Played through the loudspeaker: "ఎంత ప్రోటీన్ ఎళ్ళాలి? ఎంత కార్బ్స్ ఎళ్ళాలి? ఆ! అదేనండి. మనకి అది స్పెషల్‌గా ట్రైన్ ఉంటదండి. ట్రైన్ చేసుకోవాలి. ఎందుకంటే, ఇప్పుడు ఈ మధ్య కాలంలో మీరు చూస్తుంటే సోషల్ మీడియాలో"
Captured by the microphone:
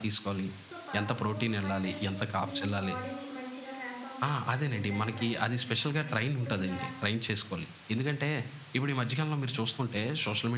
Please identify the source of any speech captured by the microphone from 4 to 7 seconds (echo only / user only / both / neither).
both